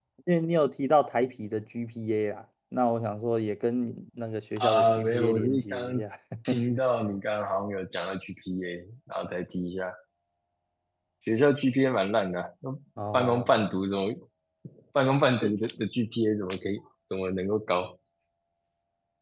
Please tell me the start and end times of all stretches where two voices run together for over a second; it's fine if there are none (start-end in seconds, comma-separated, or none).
4.6-6.0